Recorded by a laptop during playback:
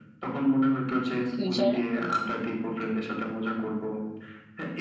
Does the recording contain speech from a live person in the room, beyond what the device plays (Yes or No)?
Yes